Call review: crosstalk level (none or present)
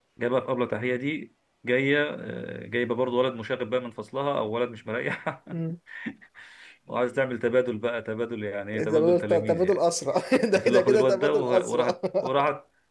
present